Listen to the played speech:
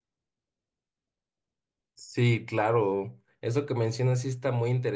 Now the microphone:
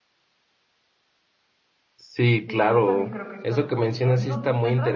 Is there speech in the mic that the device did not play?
Yes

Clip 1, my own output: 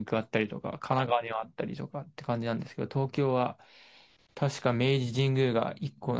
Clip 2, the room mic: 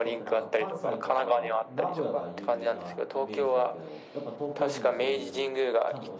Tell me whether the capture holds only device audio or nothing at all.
No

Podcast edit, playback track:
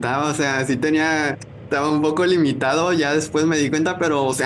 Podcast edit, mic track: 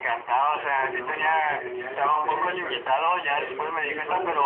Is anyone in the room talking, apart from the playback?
Yes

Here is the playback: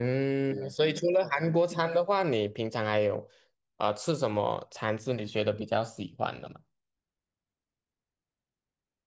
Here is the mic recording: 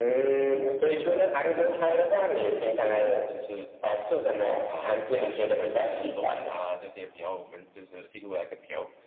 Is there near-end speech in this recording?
Yes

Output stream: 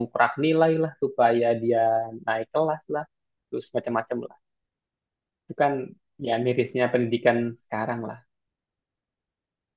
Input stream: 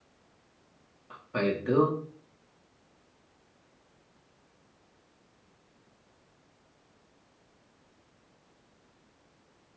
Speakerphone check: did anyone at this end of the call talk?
Yes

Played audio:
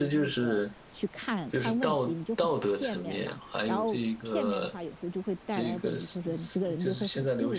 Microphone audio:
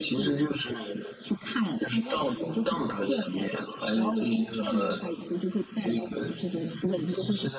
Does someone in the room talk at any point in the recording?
No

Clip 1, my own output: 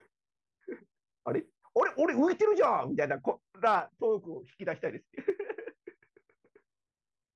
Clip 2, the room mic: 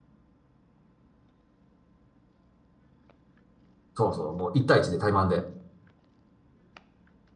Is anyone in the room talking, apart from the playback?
Yes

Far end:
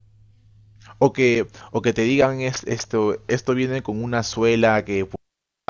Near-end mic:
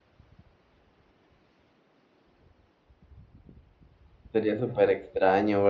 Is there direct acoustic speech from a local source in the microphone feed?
Yes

